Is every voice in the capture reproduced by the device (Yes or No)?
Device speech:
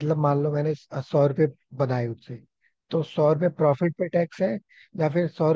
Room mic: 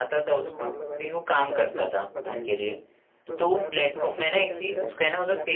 No